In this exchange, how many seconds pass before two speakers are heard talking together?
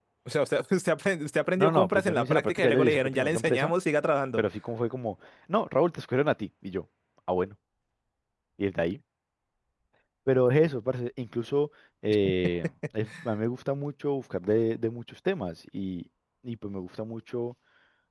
1.6 s

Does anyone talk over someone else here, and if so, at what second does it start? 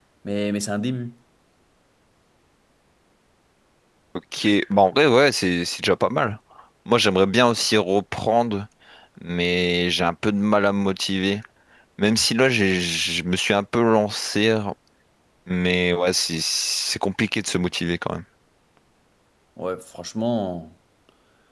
none

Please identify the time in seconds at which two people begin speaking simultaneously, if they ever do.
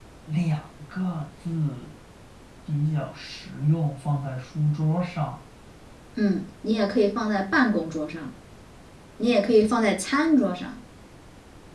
none

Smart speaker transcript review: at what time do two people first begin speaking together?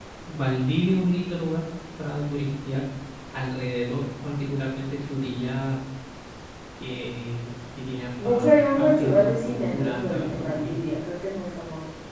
8.2 s

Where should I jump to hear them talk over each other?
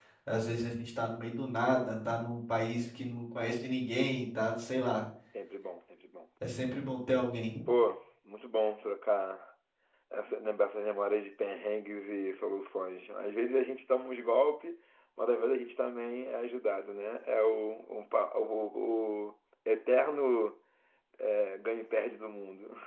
none

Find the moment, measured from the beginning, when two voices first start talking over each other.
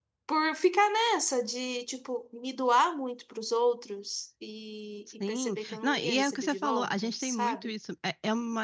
5.2 s

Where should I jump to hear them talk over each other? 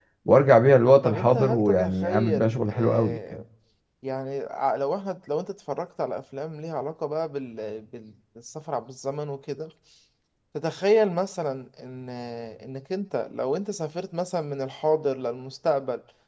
1.0 s

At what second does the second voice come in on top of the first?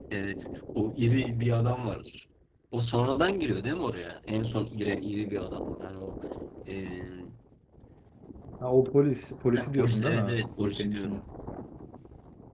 9.5 s

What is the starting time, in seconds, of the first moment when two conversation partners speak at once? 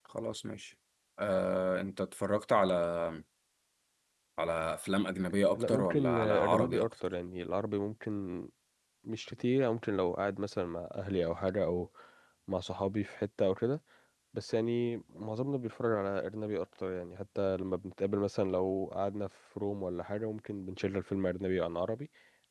5.5 s

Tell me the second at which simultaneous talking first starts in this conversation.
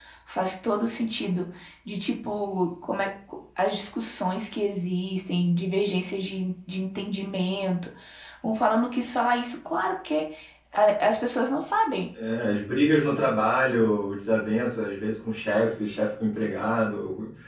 none

